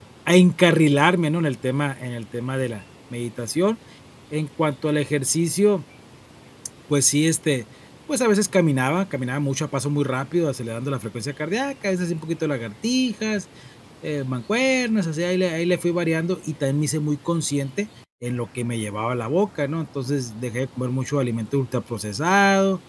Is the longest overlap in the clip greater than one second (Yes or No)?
No